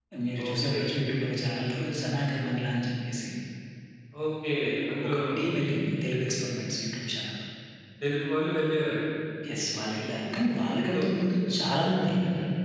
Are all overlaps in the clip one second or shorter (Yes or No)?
Yes